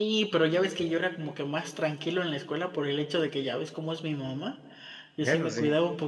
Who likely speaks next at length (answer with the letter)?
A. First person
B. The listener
A